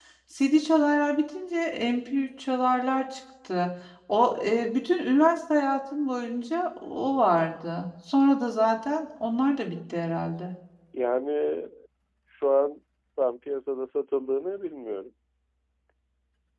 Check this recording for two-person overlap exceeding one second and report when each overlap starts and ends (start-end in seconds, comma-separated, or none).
none